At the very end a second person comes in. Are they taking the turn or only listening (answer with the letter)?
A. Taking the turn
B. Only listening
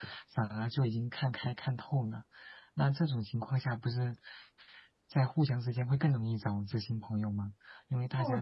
A